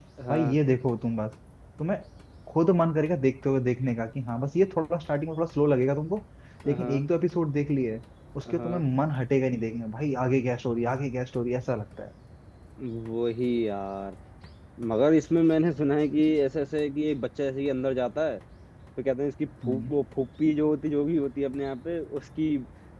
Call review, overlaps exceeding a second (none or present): none